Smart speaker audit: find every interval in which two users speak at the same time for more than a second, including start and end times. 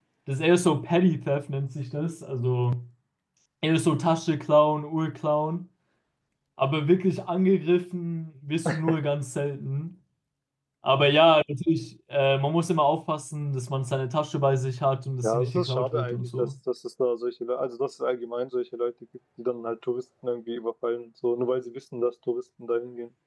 15.2-16.5

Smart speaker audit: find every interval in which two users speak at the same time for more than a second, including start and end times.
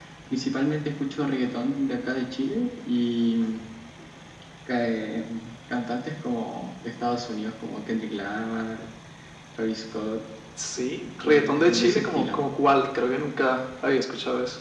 11.2-12.4

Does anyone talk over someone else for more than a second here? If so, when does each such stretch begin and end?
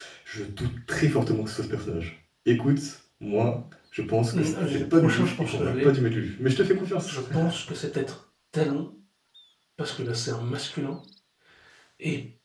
4.4-5.9

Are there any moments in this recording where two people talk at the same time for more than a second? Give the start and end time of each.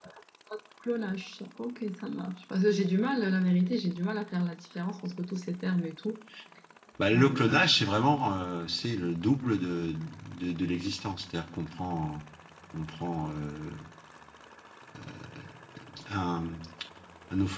none

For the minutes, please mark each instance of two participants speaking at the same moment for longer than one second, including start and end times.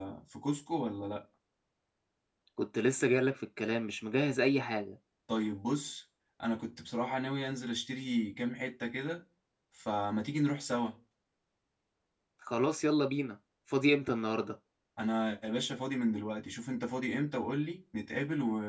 none

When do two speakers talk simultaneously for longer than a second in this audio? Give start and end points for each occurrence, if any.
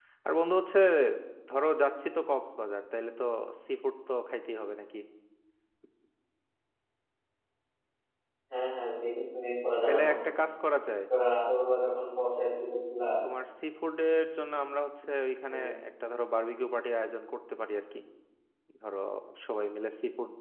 none

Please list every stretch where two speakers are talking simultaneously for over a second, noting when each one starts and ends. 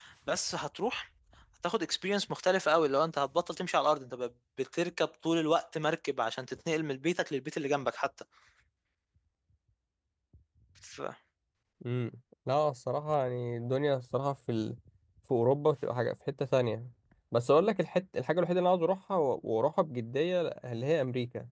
none

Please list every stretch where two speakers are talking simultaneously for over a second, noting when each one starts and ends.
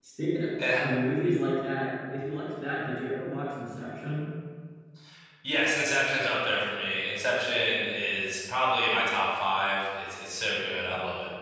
none

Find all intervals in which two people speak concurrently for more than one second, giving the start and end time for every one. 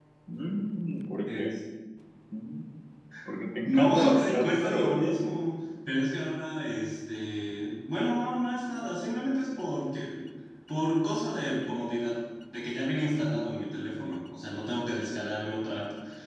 3.6-5.2

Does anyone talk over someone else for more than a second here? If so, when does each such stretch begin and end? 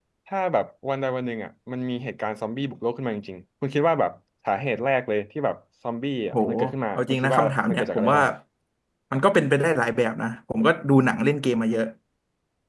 7.0-8.2

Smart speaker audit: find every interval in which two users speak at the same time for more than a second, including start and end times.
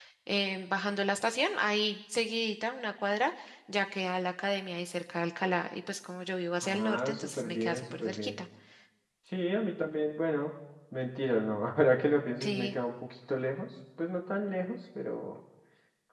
6.6-8.3

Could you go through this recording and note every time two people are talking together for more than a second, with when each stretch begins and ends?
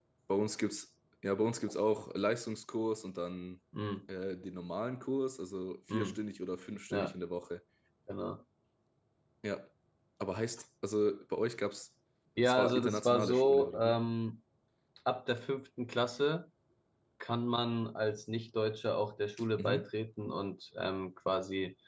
12.4-14.0

